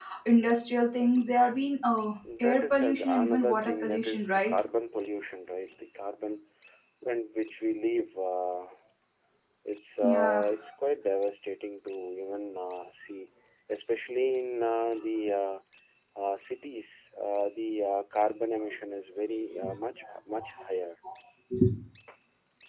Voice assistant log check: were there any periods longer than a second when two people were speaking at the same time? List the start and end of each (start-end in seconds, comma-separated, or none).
2.4-4.5